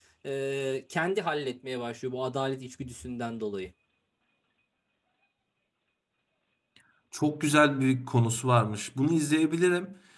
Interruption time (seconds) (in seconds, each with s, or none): none